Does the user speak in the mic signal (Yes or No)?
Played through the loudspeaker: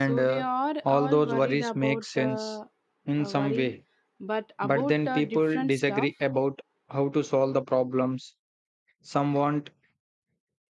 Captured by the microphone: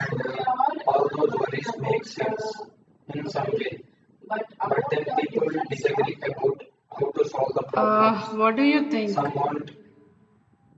Yes